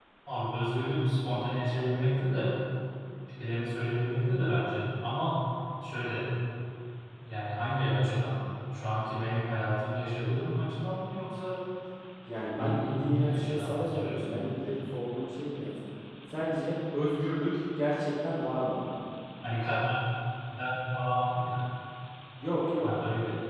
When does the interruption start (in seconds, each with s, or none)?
12.6 s